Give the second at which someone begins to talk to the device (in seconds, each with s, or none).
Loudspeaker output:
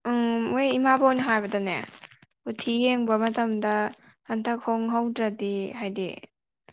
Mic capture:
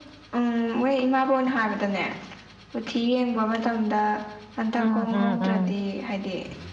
4.8 s